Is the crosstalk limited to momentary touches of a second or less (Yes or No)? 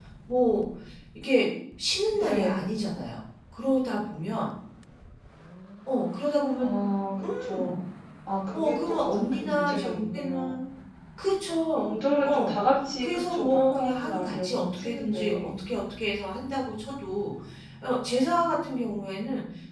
No